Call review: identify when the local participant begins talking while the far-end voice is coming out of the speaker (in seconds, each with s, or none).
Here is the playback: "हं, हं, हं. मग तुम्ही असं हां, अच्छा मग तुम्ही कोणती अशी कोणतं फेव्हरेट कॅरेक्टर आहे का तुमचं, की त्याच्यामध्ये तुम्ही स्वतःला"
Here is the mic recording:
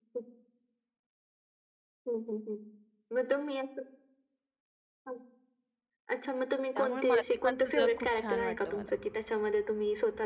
6.8 s